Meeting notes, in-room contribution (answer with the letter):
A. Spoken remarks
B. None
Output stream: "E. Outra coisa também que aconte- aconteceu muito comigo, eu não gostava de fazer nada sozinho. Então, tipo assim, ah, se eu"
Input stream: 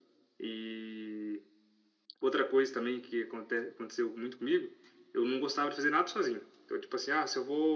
B